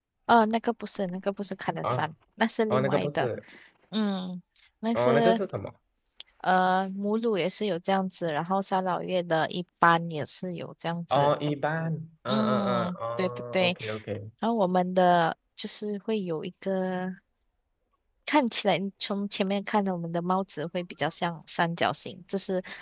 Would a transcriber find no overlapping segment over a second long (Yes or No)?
No